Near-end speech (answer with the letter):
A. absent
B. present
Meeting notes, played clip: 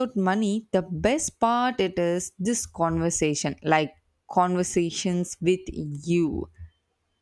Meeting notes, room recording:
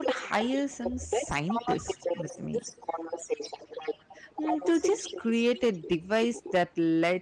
B